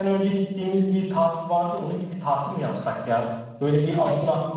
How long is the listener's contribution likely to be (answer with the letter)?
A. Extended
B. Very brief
B